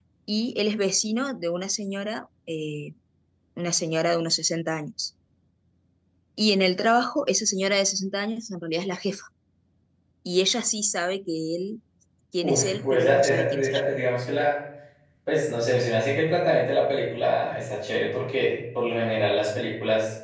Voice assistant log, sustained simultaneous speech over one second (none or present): present